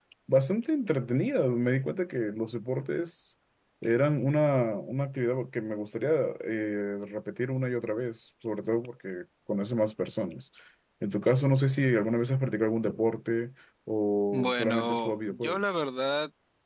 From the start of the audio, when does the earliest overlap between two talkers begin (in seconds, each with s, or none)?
14.3 s